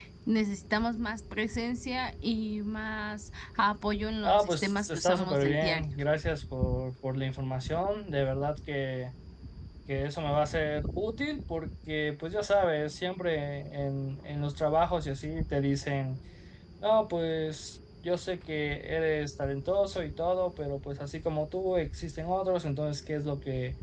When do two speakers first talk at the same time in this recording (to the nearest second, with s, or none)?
4 s